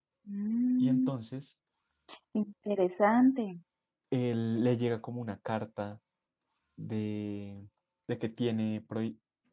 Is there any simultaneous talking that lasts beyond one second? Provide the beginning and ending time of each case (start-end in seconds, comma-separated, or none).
none